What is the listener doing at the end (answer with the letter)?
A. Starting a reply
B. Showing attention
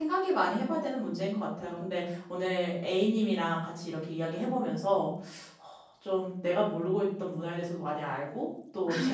B